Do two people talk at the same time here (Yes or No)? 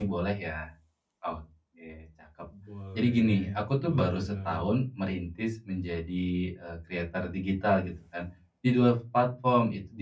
Yes